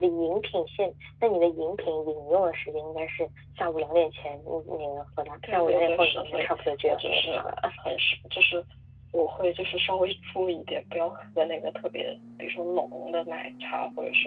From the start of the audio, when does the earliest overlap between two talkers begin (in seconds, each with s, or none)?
5.4 s